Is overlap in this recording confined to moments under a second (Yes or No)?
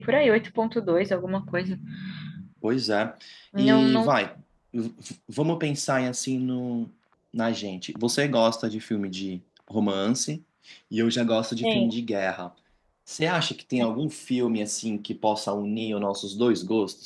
Yes